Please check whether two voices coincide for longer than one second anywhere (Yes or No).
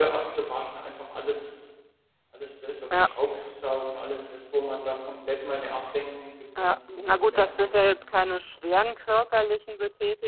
Yes